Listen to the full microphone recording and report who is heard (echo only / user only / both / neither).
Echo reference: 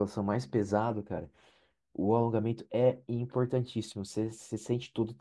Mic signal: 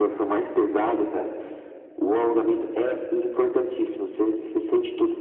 echo only